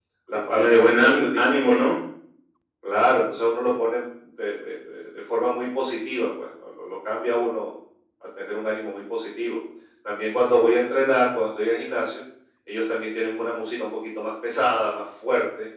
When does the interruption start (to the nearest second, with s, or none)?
1 s